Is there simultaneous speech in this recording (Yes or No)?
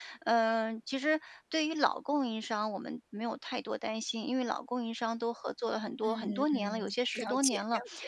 Yes